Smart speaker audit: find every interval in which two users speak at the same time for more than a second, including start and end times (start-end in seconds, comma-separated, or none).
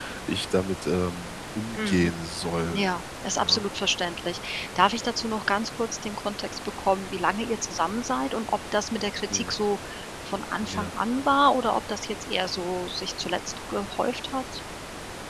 none